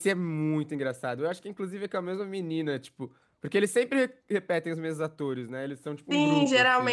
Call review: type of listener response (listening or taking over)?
taking over